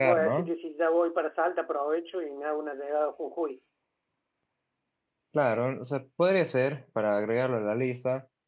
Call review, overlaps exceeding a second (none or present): none